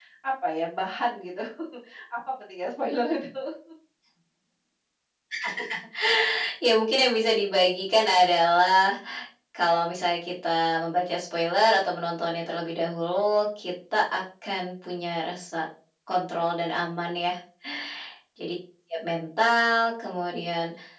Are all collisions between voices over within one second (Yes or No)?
Yes